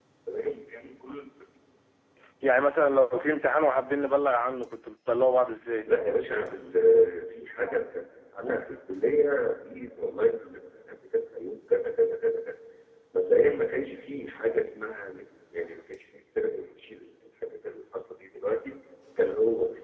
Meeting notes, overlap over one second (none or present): none